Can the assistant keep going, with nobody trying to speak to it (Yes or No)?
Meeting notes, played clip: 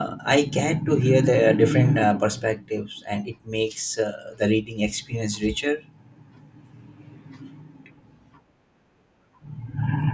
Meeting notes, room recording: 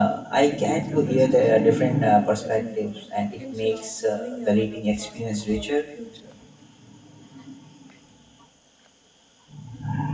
No